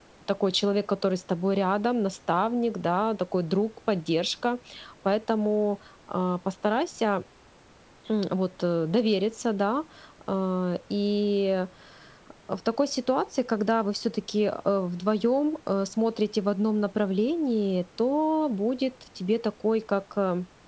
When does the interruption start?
none

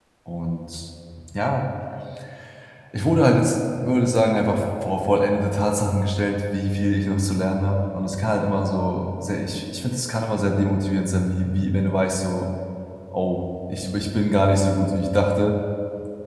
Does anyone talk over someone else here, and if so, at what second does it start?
none

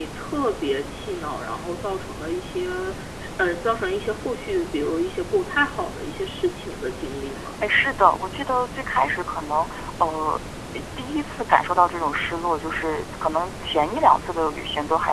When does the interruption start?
none

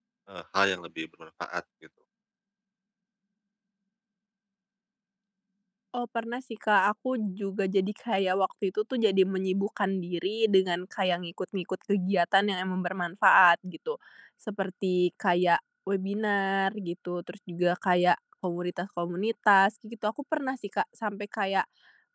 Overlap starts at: none

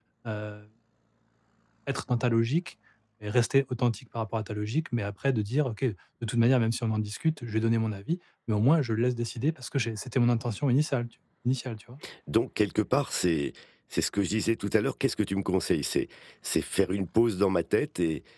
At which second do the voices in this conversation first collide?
none

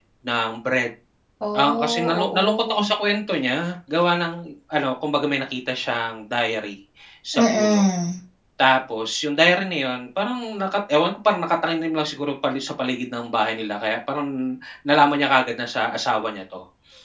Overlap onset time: 1.5 s

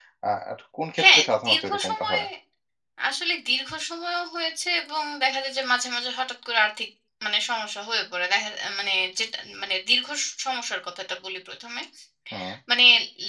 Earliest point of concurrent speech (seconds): 1.0 s

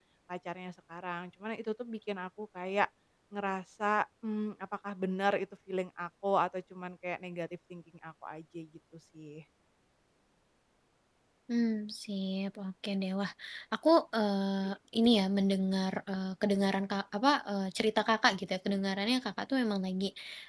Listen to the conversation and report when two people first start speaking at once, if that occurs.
none

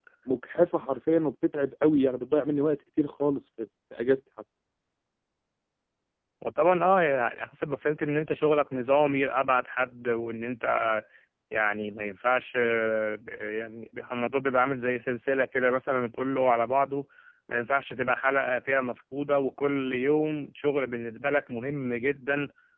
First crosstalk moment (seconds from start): none

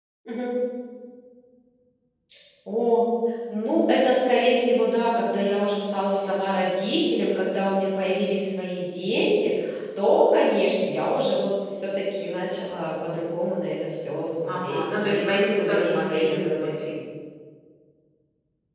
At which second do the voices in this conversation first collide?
14.5 s

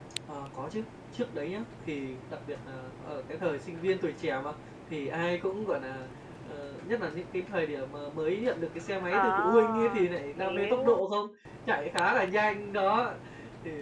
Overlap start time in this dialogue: 9.1 s

